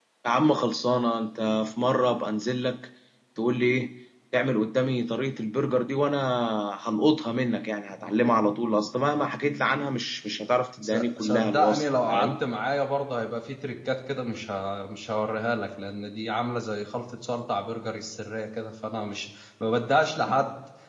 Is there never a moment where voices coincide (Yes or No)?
No